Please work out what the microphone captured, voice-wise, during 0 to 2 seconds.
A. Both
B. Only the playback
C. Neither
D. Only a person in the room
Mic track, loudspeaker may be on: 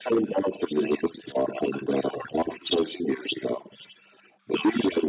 B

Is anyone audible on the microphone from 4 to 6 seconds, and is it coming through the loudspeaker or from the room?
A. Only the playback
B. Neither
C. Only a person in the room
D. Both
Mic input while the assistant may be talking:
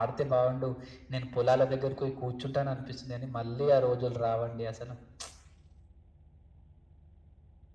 A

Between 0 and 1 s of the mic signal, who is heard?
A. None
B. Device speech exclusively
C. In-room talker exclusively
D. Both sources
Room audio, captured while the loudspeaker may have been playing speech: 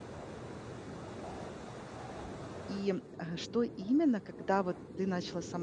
A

